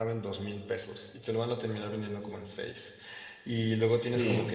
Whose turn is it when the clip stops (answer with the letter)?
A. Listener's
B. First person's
B